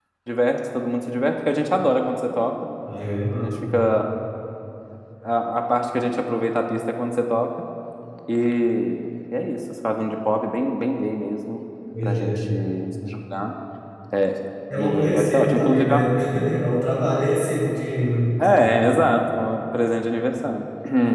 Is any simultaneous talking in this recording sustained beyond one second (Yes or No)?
Yes